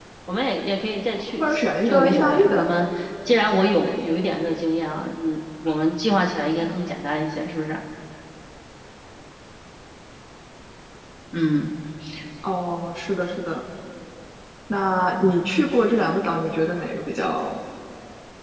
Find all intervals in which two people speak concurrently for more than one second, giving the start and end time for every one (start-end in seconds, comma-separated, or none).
1.4-2.7